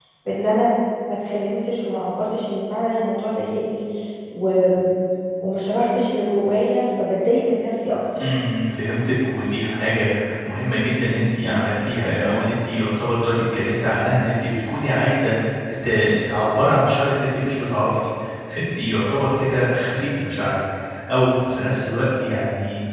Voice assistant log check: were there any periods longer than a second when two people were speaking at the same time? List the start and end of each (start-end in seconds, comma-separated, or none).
none